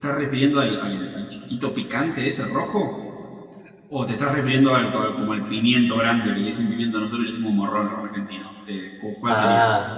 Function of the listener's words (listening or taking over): taking over